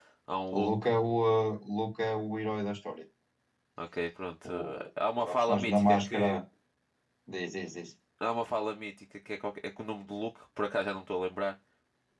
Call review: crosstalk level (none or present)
present